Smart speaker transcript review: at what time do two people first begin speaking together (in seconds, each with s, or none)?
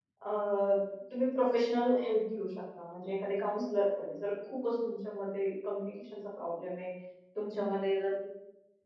none